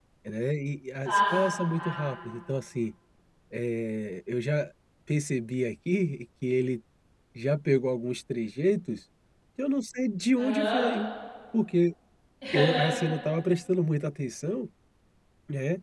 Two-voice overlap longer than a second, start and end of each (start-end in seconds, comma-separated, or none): 1.0-2.2